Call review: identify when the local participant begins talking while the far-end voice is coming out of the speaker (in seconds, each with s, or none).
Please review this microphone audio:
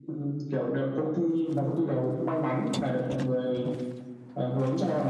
none